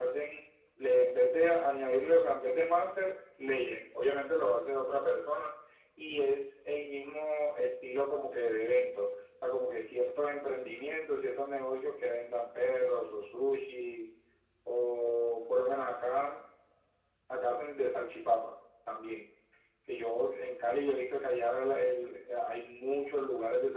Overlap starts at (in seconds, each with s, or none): none